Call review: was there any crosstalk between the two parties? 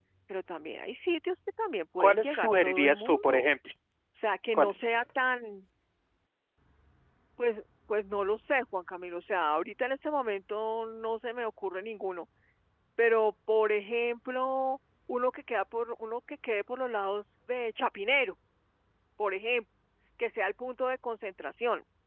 Yes, from 2.0 s

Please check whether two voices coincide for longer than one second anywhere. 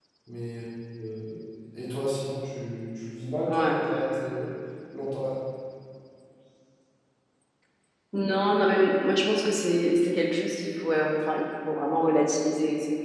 No

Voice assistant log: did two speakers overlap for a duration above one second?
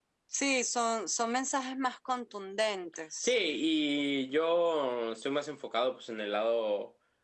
No

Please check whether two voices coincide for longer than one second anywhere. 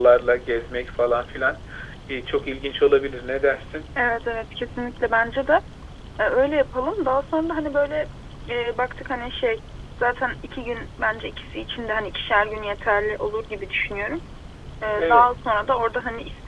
No

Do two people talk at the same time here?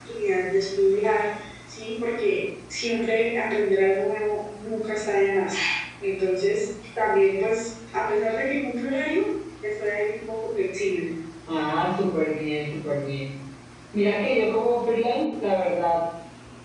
No

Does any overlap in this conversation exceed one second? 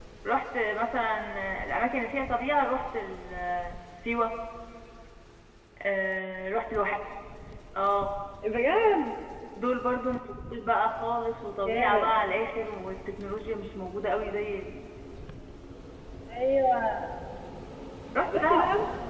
No

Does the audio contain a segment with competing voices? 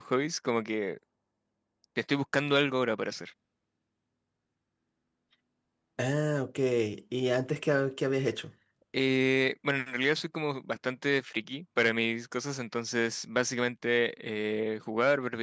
No

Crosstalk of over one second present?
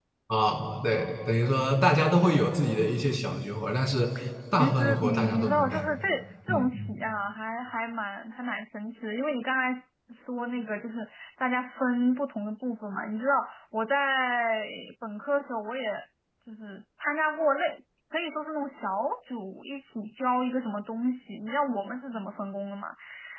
Yes, from 4.5 s

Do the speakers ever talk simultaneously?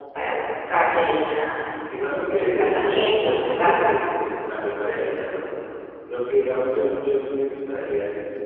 Yes, from 2.2 s

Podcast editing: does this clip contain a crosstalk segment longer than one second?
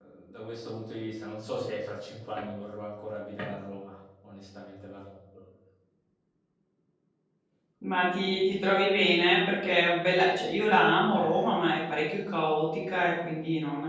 No

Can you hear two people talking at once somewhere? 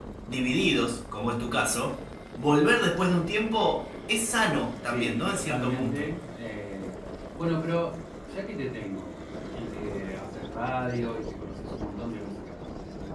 Yes, from 4.9 s

